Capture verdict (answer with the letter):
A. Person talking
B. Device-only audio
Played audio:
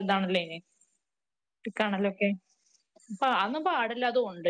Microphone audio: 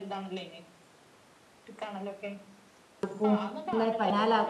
A